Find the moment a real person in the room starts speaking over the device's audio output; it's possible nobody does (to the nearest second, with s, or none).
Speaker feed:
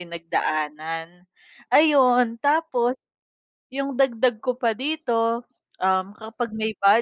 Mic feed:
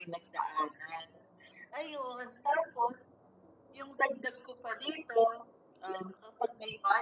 none